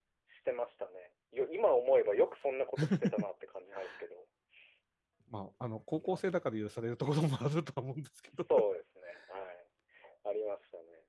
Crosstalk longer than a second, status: none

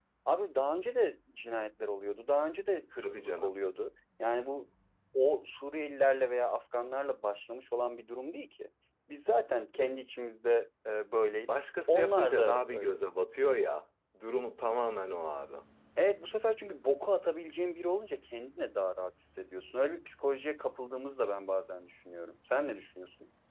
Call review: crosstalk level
present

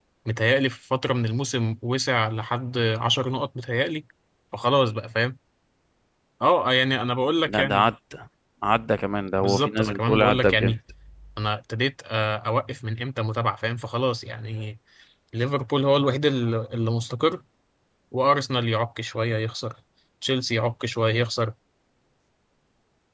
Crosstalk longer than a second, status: present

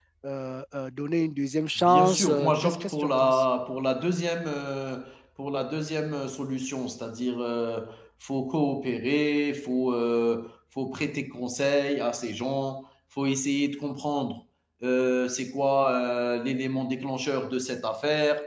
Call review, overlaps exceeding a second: present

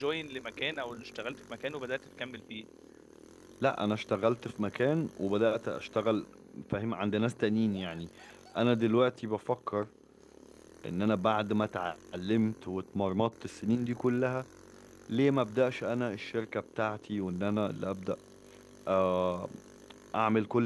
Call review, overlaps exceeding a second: none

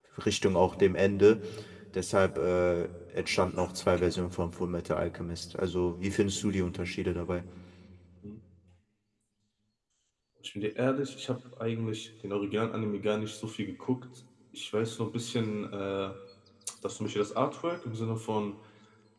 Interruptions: none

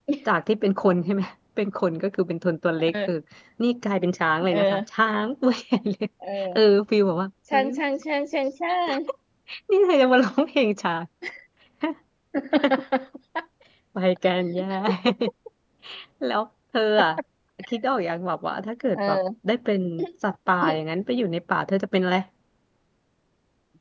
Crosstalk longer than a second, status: none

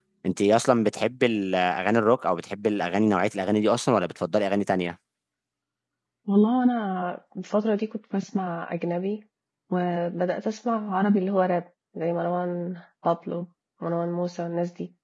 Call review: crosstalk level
none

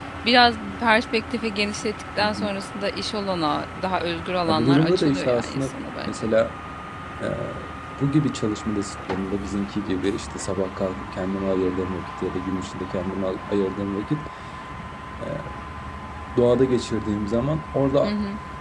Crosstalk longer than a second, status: present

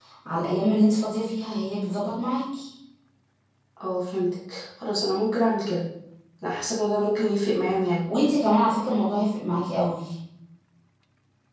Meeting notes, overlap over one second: none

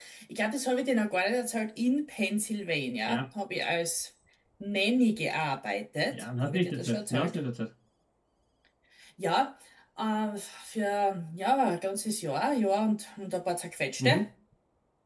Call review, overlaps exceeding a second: present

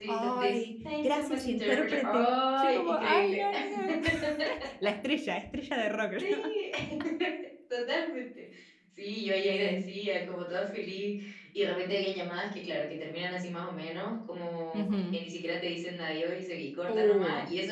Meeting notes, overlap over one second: present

